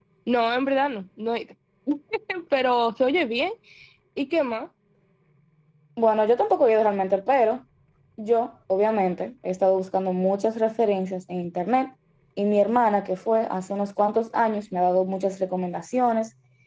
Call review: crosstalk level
none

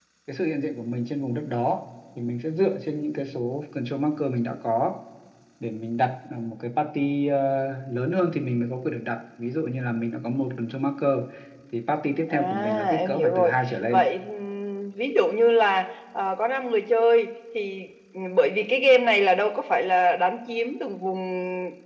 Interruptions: present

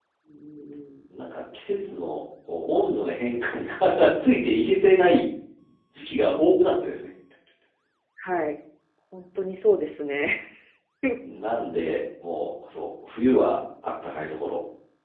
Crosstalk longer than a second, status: none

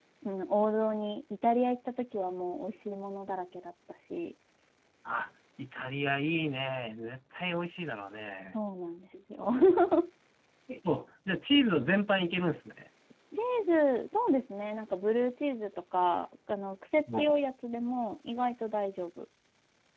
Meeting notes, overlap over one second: none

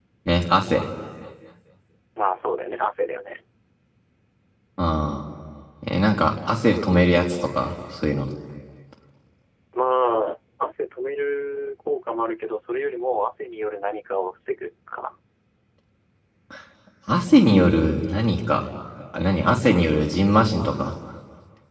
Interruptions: none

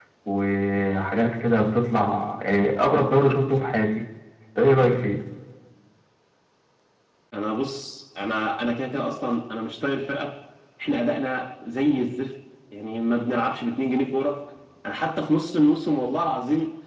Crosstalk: none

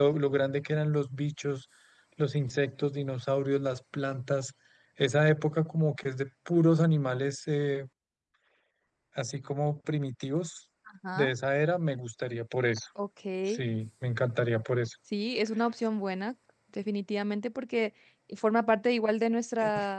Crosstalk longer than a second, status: none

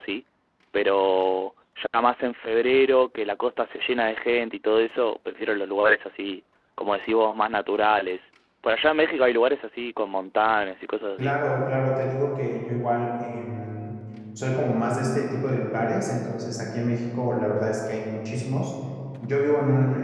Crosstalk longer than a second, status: none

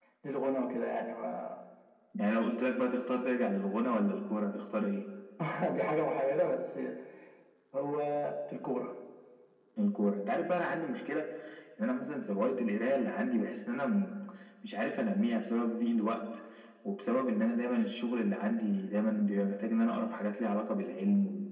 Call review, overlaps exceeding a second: none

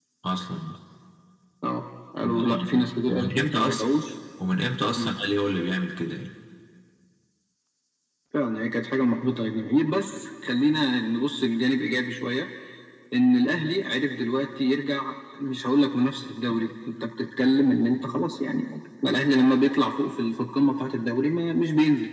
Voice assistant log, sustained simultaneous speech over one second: present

